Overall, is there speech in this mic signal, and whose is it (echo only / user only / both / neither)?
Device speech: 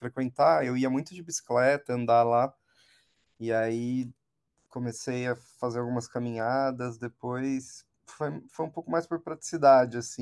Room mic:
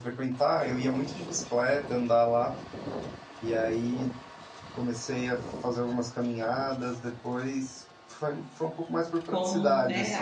both